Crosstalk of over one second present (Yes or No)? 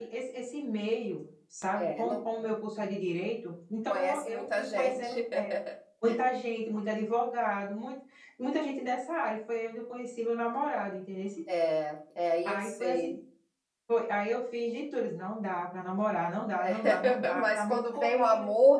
Yes